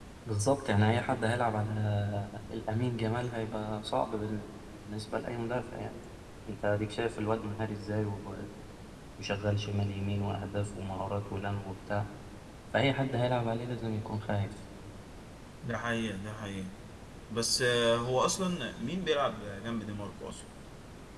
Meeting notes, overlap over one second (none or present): none